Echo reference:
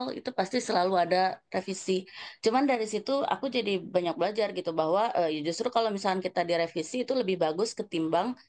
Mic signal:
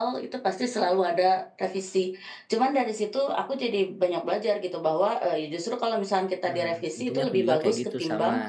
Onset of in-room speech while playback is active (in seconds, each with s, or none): 6.4 s